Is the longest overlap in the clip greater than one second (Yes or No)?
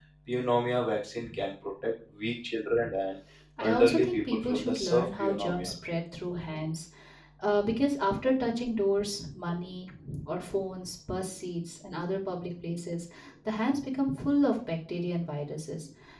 Yes